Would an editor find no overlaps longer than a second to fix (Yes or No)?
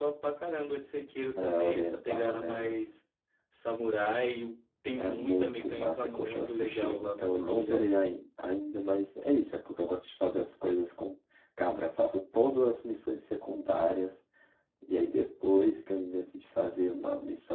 No